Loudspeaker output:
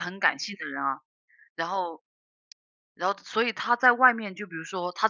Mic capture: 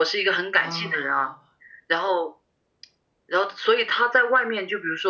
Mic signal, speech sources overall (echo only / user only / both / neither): both